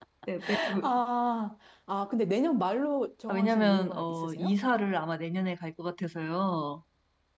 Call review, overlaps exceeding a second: present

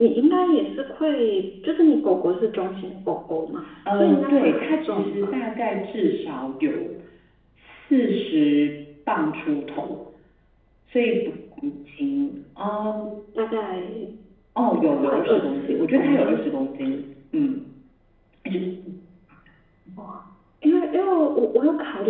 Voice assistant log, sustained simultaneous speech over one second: present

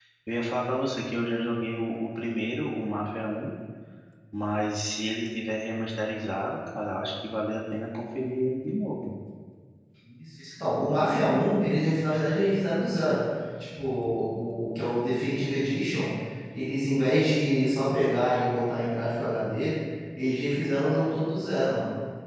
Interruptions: none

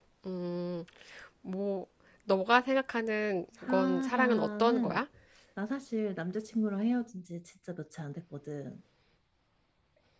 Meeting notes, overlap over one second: present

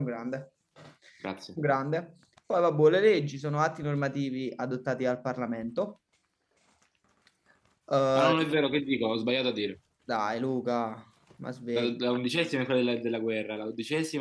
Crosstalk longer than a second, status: none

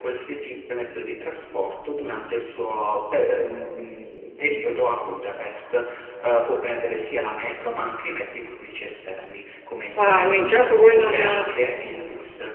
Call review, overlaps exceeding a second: present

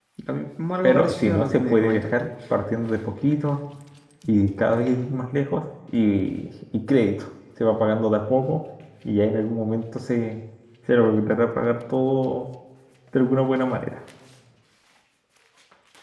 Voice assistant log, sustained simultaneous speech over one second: present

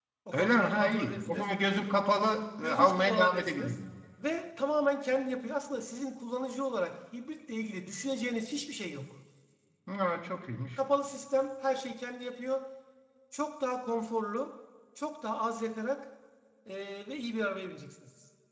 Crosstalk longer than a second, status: present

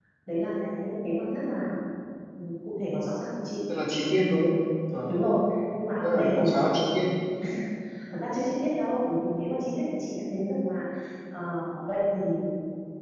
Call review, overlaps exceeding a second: none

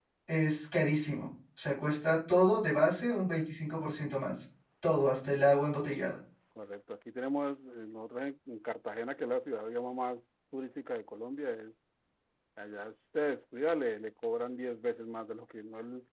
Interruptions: none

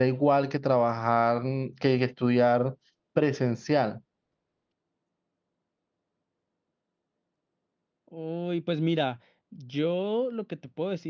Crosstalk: none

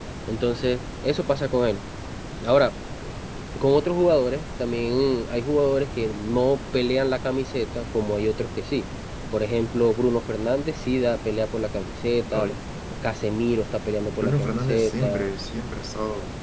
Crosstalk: present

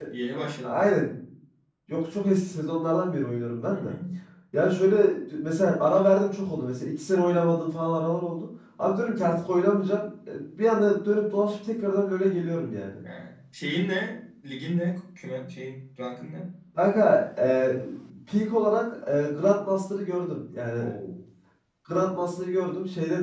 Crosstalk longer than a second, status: none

